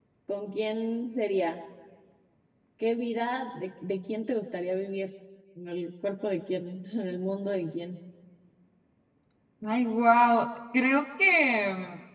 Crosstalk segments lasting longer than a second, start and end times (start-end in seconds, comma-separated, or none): none